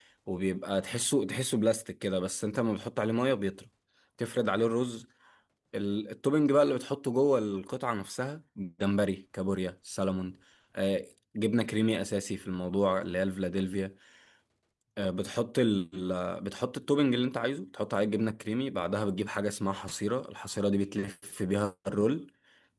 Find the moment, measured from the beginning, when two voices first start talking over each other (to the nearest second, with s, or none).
none